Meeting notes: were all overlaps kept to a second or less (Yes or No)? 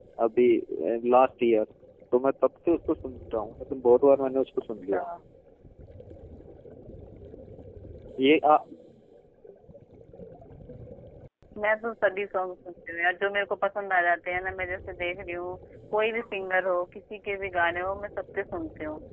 Yes